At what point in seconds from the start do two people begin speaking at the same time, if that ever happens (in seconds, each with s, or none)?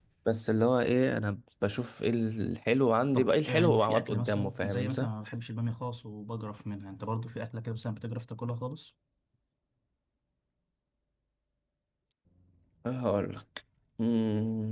3.1 s